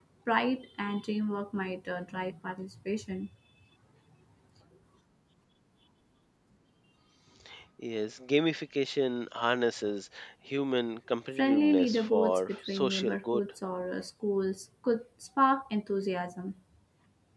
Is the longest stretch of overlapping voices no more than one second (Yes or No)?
No